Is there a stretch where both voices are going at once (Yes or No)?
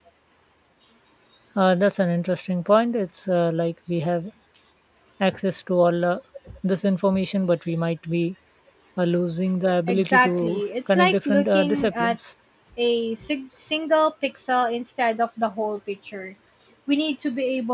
Yes